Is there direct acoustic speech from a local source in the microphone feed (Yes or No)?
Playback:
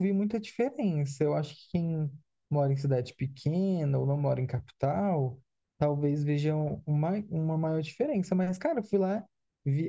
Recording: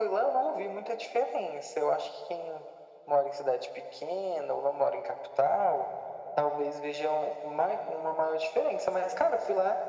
No